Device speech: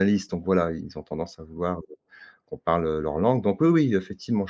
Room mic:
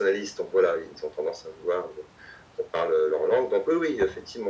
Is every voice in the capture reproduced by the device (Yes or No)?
Yes